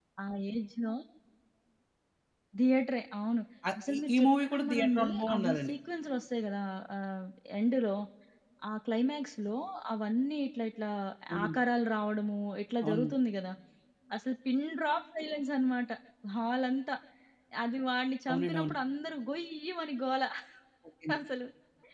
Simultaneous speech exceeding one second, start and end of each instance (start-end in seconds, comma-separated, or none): 3.9-5.7